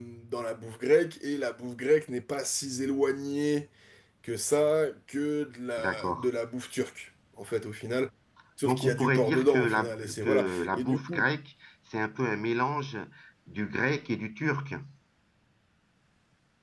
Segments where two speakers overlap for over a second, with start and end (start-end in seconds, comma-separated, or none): 8.6-11.2